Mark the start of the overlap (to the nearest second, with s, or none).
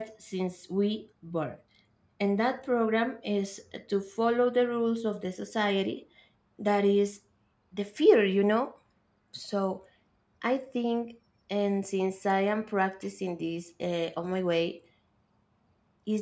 none